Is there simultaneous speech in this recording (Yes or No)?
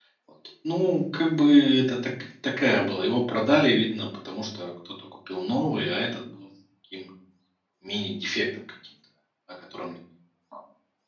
No